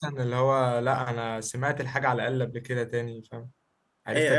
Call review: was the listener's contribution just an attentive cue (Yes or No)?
No